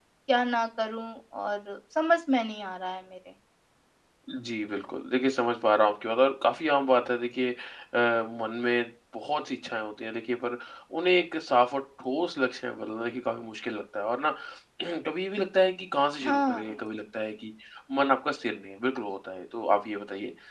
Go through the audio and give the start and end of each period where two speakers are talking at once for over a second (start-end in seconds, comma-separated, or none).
none